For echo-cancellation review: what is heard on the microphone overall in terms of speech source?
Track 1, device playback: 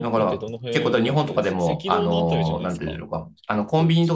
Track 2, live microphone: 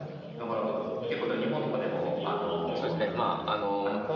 both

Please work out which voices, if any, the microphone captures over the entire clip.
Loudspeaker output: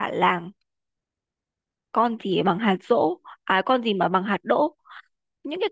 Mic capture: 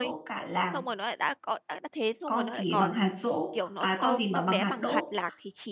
both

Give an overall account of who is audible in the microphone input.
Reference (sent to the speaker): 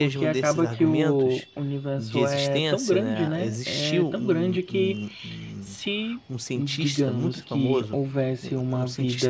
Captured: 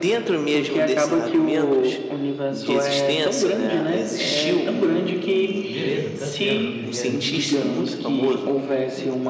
both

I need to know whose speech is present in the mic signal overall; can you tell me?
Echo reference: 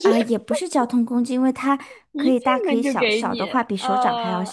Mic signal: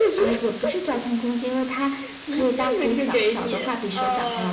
echo only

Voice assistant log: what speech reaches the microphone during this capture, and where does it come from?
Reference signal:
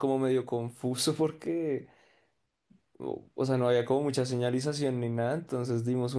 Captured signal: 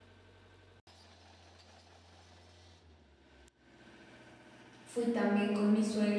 user only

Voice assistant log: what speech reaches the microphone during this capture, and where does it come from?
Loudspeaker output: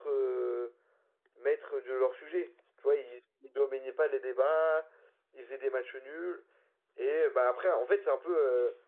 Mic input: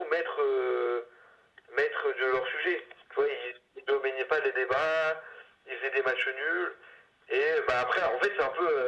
echo only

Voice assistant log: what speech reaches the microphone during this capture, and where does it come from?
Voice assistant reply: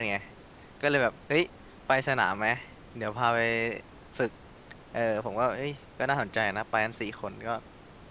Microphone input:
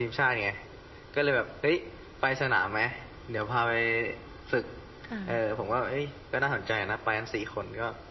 both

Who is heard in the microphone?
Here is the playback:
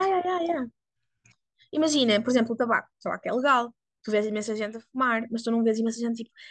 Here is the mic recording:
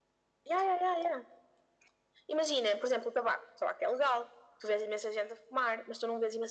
echo only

